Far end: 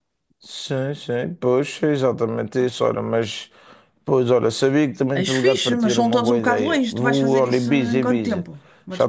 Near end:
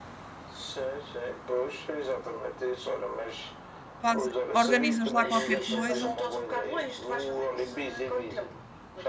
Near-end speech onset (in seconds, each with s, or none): 4.0 s